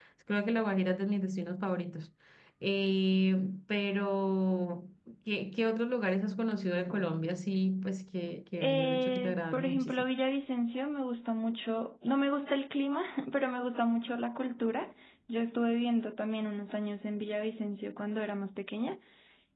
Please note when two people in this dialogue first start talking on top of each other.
8.6 s

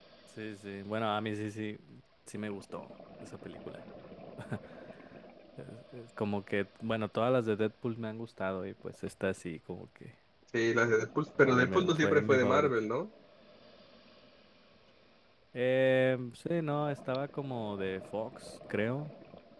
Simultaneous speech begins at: 11.4 s

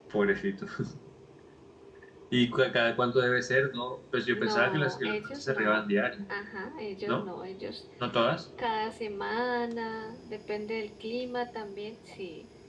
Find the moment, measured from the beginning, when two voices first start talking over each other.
4.3 s

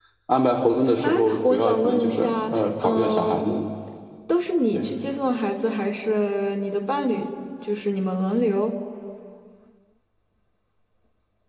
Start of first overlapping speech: 1.0 s

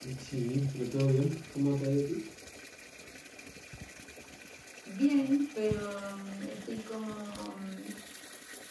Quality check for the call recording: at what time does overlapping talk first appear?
none

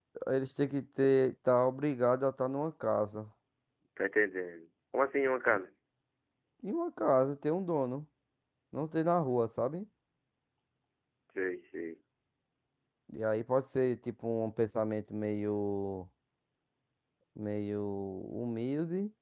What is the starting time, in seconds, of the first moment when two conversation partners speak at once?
none

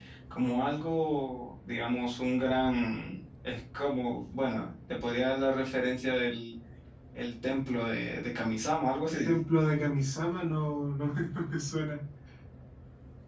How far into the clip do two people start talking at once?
none

